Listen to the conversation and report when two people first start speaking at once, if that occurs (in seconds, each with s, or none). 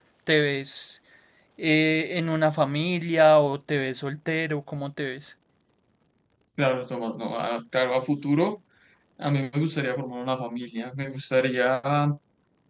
none